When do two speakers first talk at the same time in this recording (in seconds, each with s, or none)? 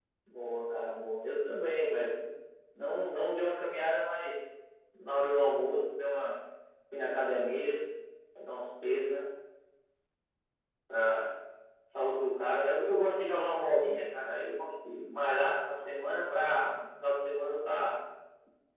none